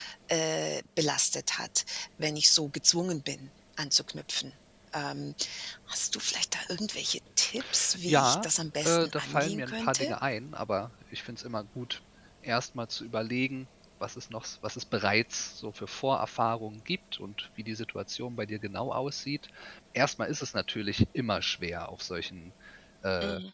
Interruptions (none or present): present